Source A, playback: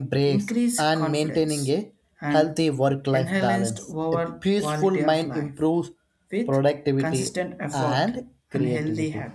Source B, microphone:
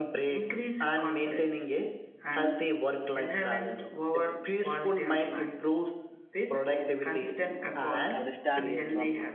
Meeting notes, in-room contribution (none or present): present